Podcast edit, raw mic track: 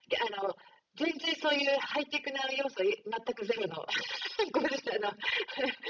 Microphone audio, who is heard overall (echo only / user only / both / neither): echo only